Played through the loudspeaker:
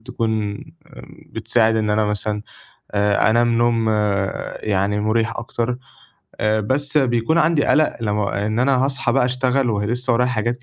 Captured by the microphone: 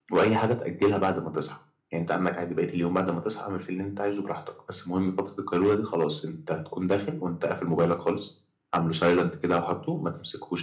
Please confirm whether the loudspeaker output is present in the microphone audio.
No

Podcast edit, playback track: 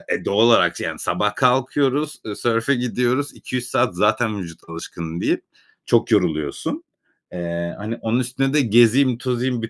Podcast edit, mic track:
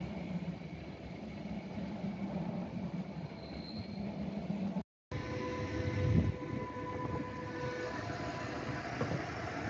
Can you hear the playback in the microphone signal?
No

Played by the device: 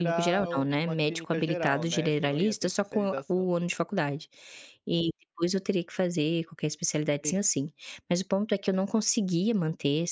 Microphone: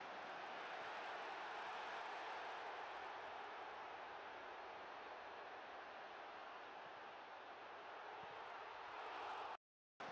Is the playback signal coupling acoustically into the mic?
No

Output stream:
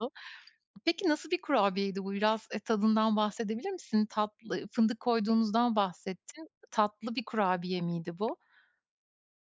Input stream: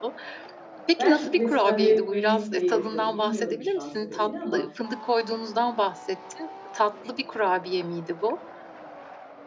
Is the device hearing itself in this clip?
Yes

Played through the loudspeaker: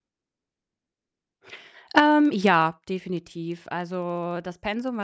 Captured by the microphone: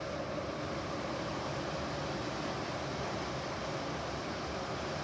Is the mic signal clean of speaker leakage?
Yes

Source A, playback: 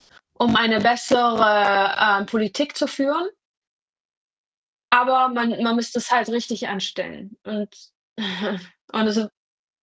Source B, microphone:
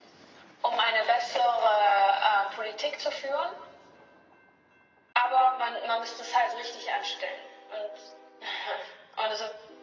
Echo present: Yes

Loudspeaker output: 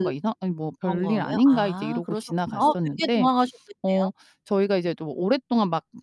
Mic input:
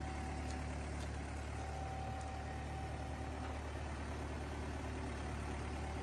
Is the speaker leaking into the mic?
No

